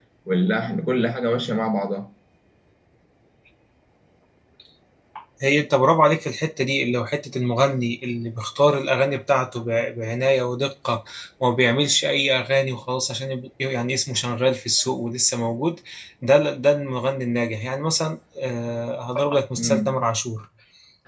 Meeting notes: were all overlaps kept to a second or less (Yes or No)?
Yes